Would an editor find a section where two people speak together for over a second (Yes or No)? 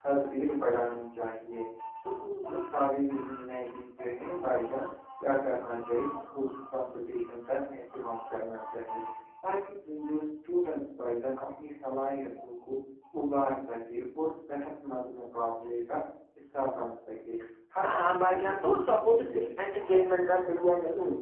Yes